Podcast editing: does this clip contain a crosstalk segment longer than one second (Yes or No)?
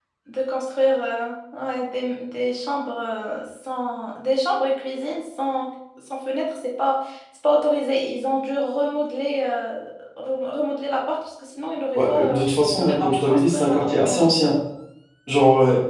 Yes